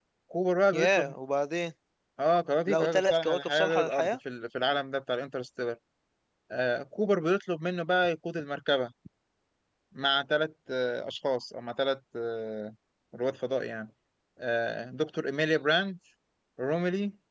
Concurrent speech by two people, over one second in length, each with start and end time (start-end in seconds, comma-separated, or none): 2.7-4.2